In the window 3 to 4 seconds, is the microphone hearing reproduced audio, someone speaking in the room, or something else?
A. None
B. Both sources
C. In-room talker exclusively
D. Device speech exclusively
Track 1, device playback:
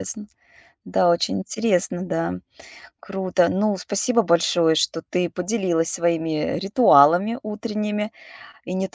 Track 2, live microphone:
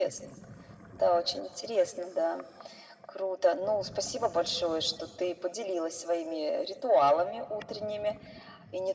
D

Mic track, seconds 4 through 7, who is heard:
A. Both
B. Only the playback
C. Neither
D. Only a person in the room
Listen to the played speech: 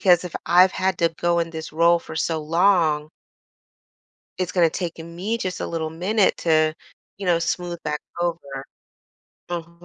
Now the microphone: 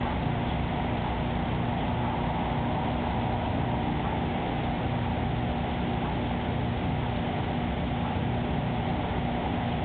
C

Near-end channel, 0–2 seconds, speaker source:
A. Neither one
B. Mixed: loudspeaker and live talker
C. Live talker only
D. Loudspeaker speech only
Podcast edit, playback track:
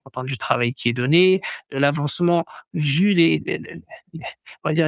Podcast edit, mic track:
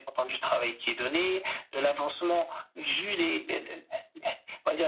D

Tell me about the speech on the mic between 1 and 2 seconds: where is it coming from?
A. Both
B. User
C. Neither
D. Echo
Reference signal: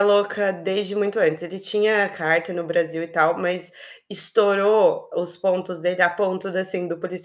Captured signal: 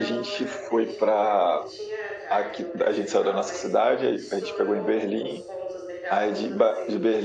A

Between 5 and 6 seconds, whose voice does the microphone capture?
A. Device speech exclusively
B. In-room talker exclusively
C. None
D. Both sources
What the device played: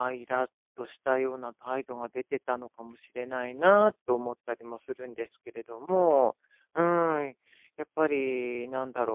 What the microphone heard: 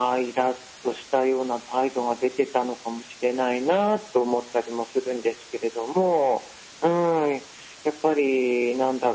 A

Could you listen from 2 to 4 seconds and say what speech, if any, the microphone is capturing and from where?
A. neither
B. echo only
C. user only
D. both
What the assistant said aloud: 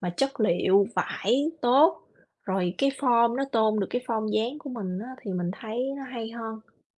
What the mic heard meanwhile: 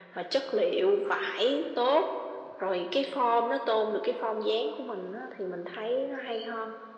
B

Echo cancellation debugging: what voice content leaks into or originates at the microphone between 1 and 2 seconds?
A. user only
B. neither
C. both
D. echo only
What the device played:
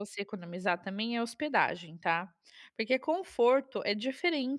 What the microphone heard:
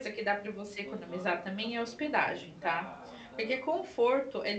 C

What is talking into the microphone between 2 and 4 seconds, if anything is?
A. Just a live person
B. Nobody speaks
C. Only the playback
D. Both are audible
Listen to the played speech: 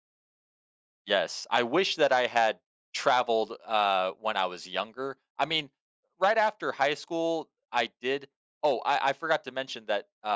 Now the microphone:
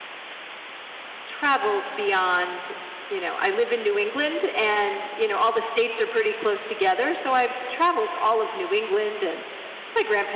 A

